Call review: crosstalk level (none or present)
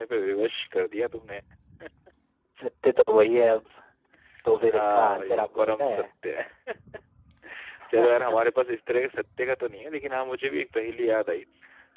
present